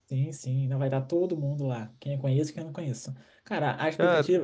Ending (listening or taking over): listening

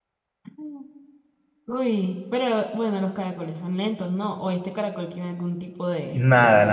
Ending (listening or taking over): taking over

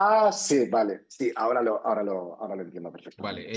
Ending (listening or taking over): taking over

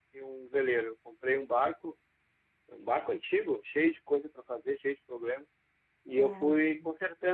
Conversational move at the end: listening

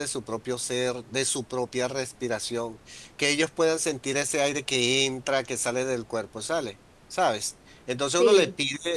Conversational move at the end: listening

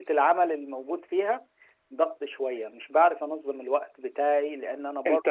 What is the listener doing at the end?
taking over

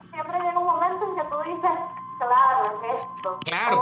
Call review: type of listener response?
taking over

